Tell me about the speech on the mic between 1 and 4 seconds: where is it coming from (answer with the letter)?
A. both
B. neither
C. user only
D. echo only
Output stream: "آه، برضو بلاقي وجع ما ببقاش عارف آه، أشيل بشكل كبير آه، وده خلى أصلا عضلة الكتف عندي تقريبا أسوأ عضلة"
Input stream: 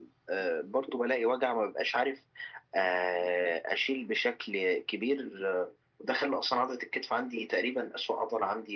D